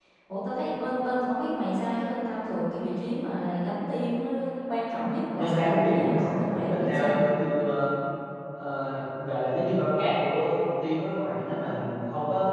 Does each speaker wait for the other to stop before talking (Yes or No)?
No